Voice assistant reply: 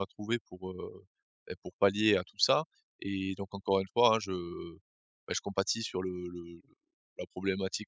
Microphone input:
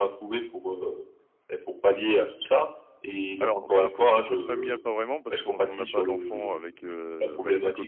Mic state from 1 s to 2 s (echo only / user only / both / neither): echo only